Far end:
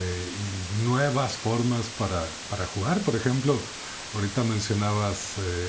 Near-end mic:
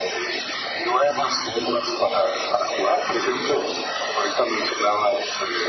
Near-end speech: none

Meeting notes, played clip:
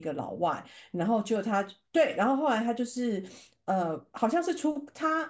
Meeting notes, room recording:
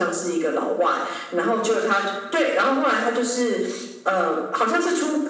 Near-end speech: none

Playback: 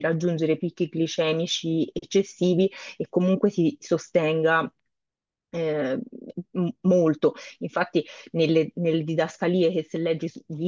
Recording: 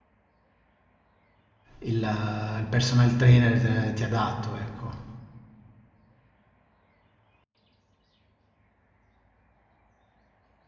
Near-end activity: present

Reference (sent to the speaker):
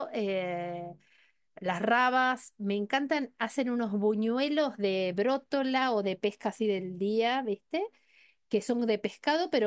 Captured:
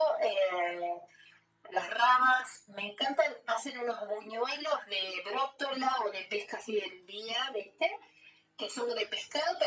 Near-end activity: none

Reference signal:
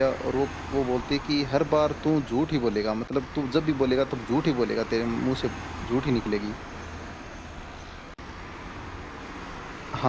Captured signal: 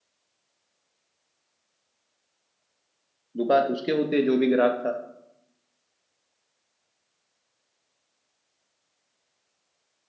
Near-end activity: present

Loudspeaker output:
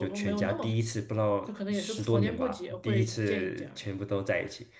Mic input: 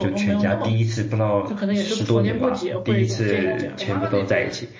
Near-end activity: present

